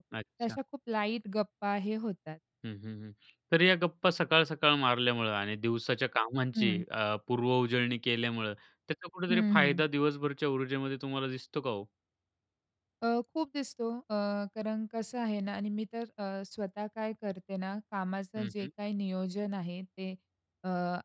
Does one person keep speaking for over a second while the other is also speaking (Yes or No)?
No